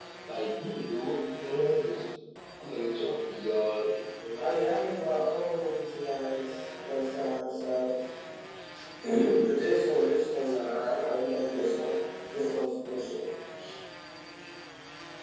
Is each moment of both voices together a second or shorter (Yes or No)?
Yes